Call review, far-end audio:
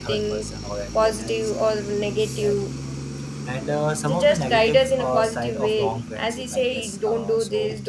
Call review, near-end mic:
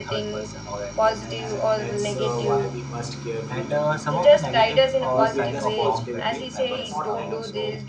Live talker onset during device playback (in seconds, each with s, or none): 1.4 s